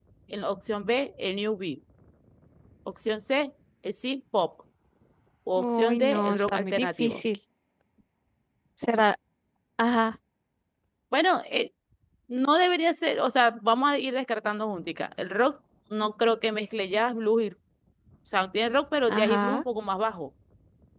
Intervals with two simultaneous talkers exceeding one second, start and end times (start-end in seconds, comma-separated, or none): 5.6-7.2